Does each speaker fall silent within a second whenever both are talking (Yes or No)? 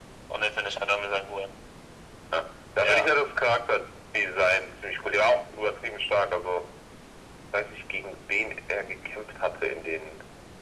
Yes